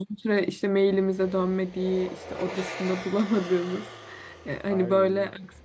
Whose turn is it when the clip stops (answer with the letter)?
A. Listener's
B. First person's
B